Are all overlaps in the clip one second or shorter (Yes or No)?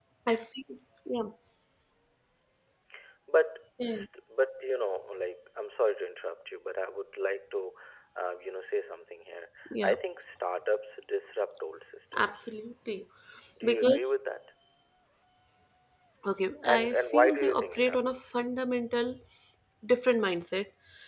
No